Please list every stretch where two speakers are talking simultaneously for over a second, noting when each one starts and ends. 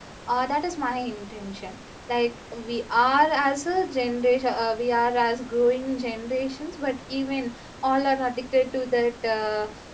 none

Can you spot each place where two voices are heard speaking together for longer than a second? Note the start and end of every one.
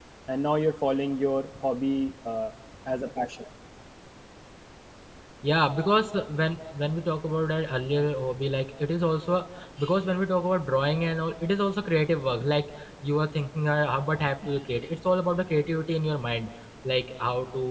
none

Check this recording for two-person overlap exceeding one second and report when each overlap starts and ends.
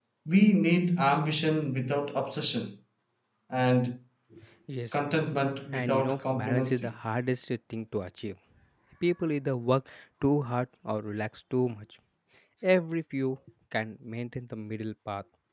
5.7-6.9

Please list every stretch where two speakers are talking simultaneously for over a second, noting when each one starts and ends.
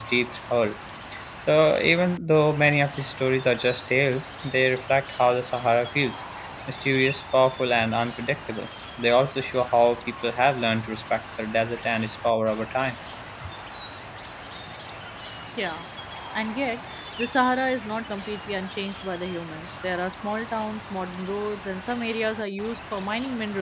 none

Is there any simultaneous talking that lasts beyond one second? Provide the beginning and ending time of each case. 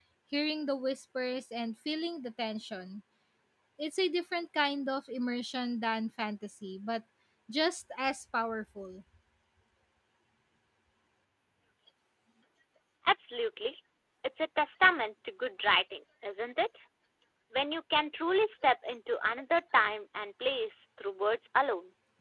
none

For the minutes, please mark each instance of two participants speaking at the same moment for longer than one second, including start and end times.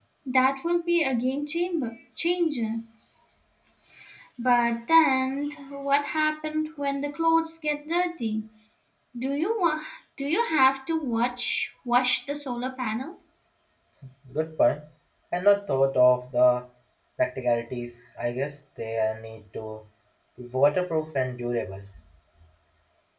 none

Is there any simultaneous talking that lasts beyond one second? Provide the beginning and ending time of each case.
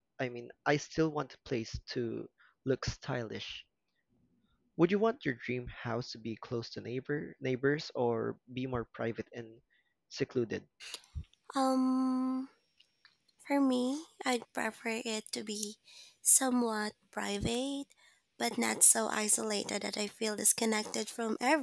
none

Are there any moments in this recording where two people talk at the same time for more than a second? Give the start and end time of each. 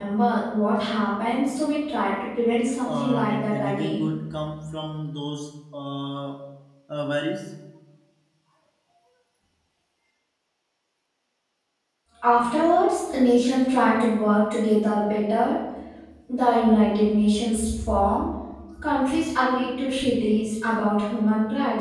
2.9-4.1

